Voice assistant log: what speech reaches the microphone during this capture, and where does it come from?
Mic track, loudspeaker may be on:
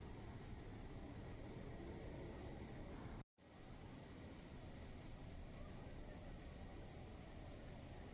neither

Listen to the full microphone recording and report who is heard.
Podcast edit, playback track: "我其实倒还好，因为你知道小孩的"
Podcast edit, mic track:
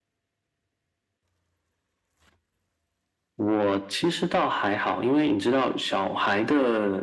echo only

